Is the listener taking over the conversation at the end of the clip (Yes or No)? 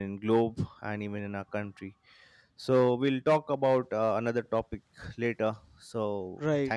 Yes